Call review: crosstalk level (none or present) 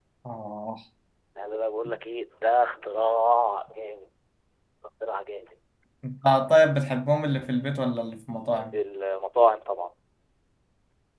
none